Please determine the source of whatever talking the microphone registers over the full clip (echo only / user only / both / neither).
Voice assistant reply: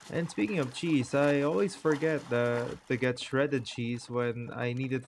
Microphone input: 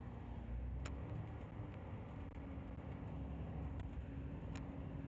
neither